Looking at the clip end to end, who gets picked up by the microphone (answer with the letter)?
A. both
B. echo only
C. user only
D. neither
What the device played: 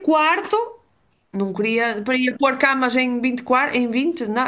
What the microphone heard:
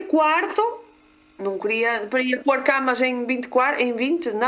B